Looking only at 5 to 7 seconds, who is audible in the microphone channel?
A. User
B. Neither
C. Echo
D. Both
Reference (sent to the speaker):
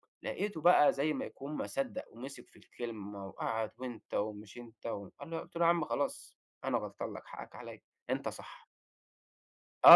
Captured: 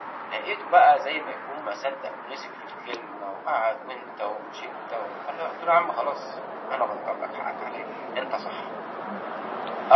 C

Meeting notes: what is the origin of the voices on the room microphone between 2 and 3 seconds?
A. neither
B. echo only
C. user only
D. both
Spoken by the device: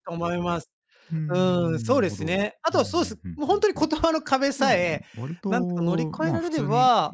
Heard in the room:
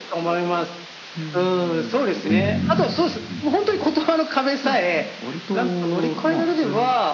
D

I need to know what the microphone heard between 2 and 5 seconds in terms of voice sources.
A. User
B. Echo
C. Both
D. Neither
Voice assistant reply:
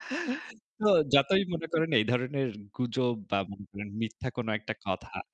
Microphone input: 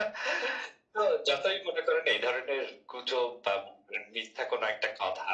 B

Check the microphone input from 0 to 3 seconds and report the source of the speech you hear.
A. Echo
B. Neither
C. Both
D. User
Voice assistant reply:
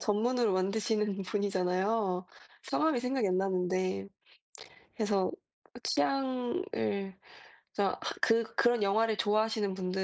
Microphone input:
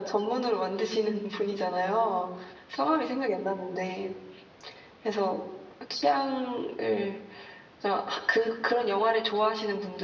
A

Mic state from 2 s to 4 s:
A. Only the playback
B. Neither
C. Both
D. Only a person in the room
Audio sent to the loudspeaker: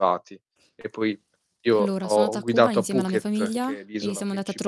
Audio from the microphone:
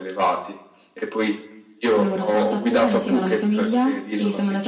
A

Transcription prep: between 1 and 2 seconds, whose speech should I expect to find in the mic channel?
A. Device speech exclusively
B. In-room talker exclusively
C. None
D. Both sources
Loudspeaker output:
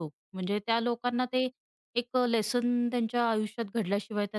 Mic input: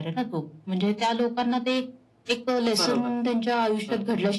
A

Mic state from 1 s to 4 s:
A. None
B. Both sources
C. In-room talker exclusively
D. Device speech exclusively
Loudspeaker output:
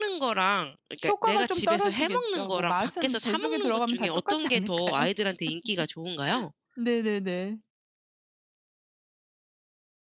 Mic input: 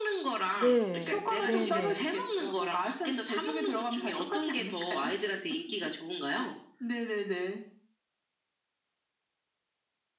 B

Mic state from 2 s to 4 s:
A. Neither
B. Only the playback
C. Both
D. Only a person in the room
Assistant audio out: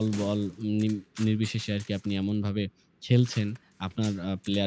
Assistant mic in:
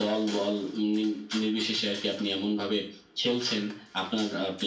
B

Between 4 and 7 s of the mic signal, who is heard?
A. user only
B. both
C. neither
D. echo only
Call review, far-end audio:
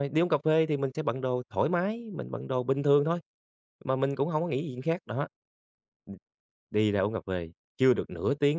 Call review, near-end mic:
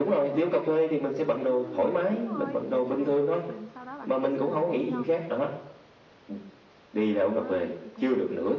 B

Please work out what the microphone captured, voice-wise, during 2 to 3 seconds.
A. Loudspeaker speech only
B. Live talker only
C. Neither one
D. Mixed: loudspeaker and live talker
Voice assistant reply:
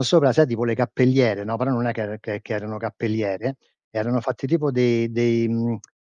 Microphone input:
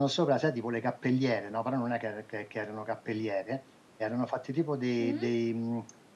A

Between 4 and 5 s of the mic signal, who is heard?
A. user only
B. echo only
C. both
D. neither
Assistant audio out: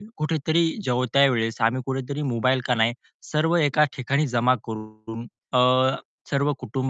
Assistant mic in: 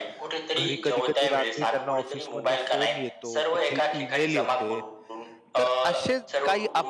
C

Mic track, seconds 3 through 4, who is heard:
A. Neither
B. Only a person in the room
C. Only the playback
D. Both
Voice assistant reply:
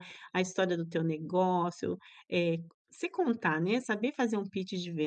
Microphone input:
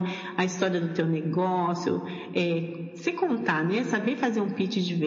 C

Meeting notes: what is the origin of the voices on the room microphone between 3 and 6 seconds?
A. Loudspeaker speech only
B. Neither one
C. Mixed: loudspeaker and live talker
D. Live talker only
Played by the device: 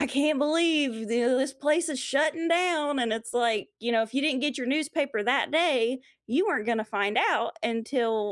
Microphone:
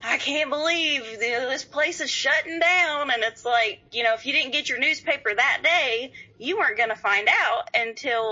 A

